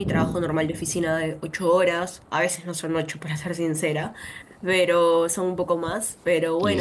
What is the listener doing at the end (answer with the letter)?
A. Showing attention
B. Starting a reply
A